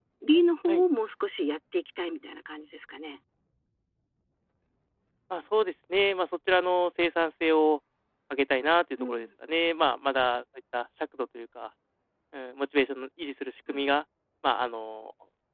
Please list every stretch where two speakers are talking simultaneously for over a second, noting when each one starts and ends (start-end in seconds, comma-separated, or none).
none